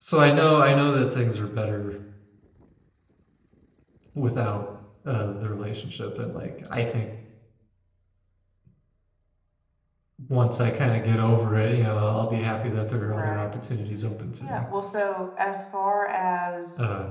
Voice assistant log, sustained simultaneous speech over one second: none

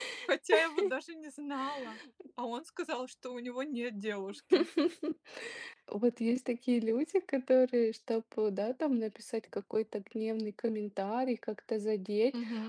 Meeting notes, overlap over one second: none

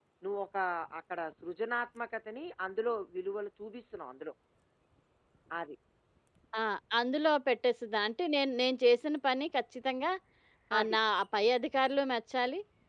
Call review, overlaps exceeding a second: none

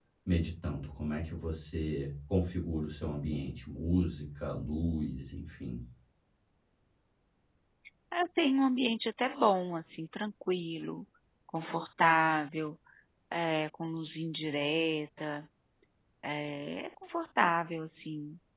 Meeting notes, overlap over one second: none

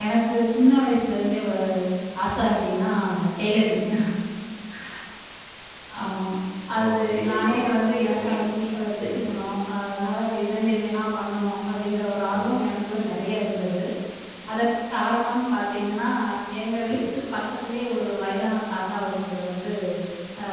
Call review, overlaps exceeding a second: present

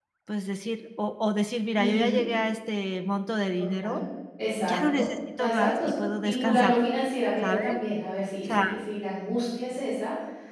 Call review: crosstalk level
present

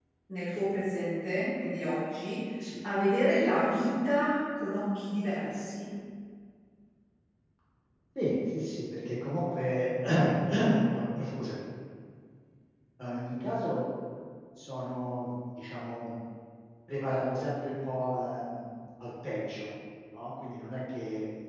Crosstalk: none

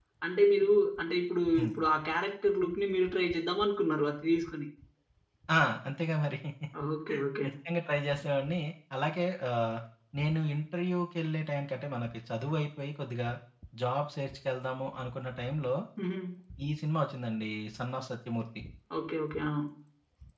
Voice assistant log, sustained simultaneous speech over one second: none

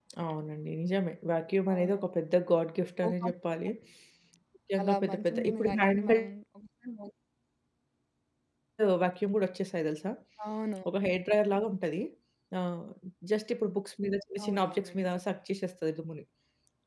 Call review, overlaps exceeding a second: present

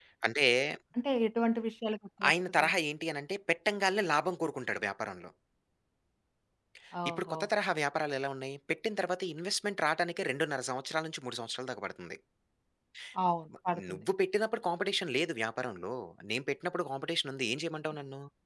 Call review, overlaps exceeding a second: none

